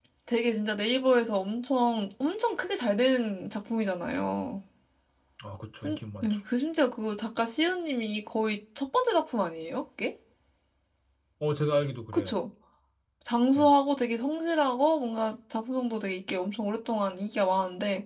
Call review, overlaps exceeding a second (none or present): none